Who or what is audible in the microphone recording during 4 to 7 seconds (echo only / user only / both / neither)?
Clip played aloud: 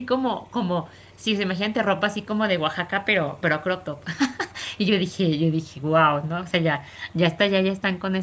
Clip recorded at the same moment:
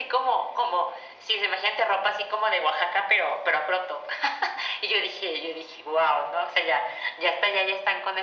echo only